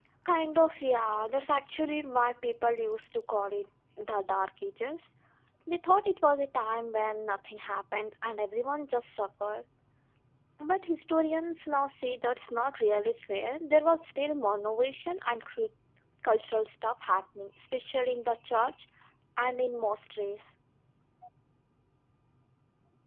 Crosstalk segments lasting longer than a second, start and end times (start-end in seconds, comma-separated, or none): none